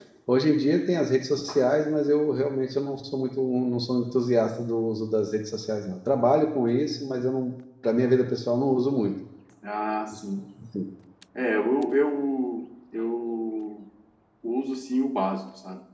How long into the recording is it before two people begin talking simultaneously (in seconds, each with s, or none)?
none